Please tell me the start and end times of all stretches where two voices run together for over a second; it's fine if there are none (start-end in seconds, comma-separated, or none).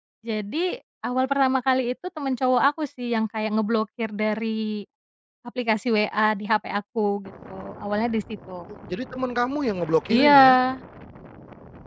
none